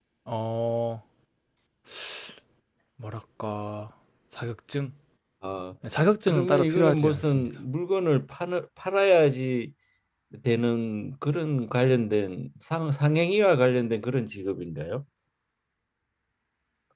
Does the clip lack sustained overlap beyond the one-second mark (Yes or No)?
No